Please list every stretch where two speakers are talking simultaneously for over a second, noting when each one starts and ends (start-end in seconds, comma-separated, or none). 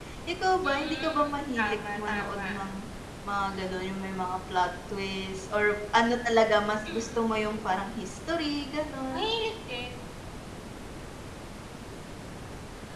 0.6-2.5